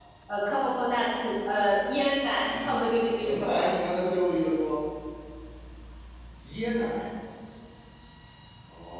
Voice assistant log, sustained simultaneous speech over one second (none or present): present